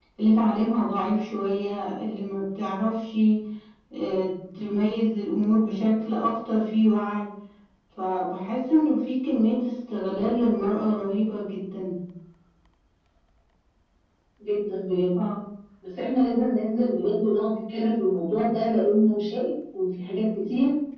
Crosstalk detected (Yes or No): No